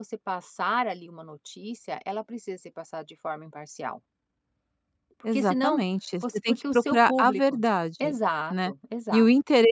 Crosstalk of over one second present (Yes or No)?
Yes